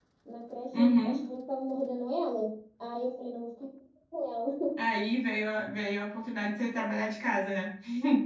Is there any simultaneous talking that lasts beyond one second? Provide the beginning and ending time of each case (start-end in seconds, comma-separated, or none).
none